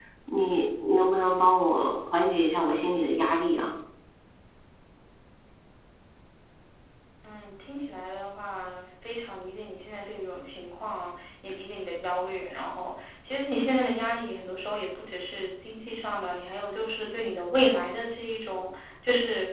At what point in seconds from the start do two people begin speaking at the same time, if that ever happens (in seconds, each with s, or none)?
none